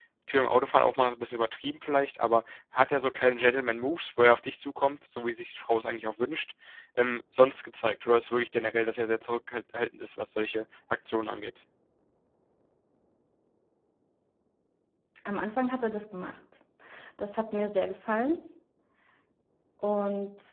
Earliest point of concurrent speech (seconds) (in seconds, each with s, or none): none